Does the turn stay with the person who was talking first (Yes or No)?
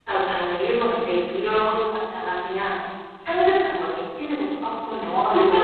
No